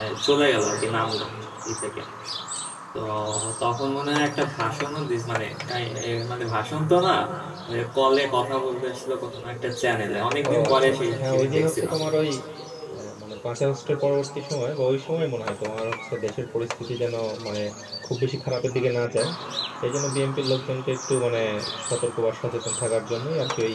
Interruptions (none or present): present